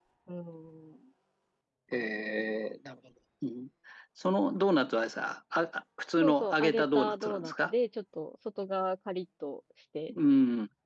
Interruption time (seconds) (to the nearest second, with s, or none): 6 s